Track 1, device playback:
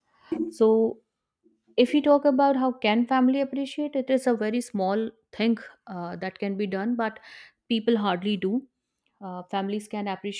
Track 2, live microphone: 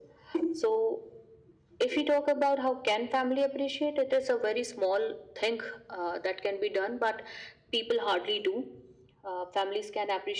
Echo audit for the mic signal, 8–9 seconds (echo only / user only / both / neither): echo only